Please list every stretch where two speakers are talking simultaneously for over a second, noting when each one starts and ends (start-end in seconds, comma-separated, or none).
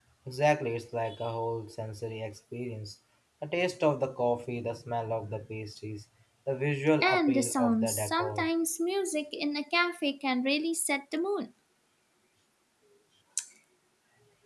7.0-8.5